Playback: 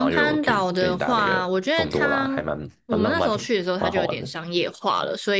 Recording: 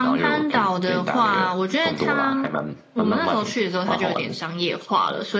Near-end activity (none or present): none